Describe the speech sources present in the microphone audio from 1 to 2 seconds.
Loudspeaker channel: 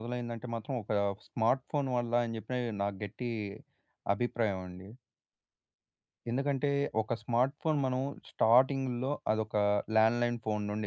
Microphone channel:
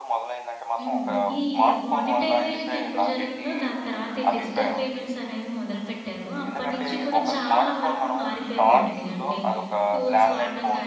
both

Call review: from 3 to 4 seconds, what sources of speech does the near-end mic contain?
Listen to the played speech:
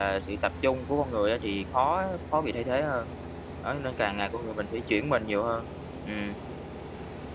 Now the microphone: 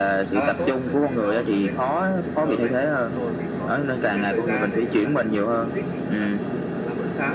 both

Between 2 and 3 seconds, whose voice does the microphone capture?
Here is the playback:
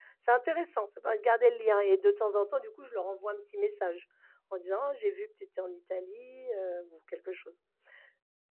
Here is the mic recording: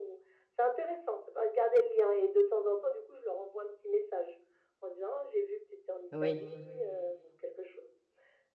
echo only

